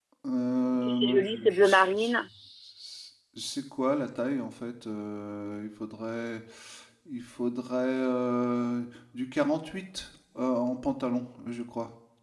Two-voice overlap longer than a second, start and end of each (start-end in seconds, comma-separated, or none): 0.7-2.2